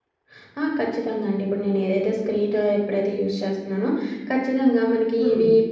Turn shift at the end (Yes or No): No